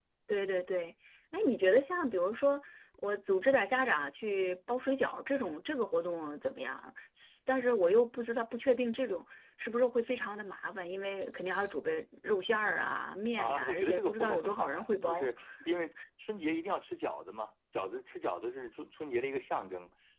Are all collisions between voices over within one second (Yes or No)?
No